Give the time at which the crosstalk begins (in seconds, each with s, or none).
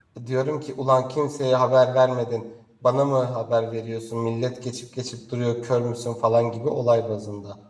none